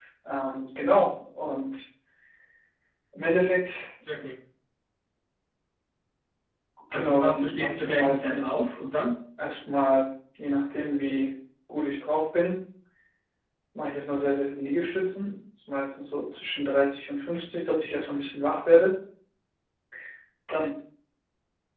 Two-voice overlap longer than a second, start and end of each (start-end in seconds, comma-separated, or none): 6.9-8.8